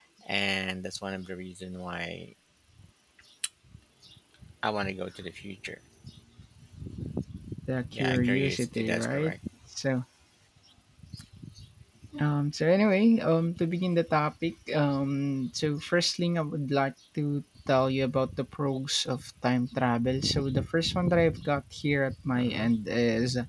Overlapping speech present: Yes, from 7.9 s

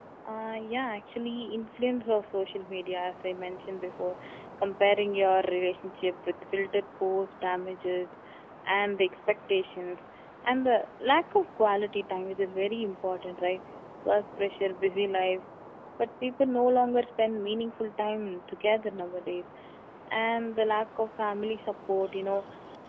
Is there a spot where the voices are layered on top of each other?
No

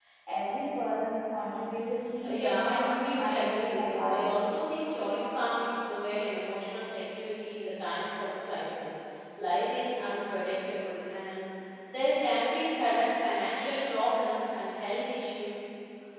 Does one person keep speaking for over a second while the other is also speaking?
Yes, from 2.2 s

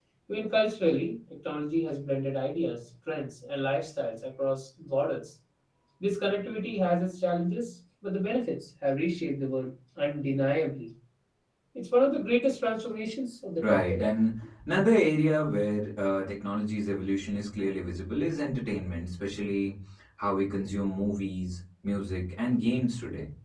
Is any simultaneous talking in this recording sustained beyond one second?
No

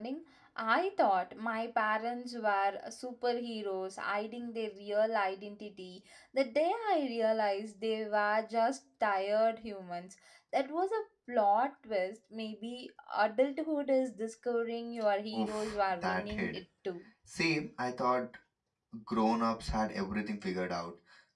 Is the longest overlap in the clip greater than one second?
Yes, from 15.3 s

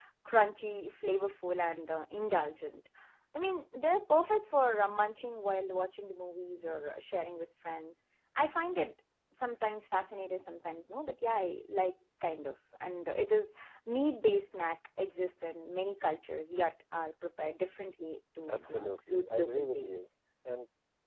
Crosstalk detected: Yes, from 18.5 s

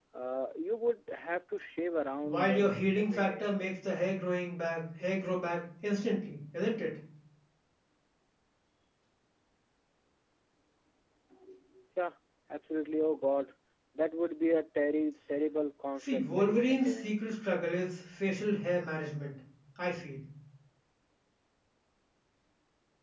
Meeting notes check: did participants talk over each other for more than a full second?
Yes, from 2.2 s

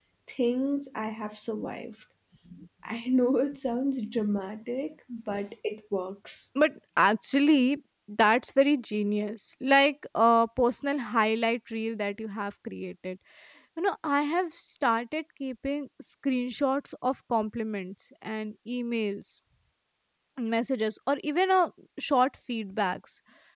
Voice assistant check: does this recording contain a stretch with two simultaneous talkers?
No

